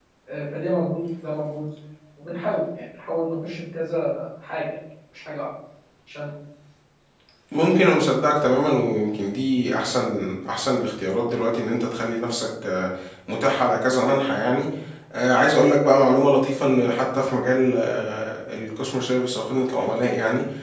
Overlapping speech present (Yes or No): No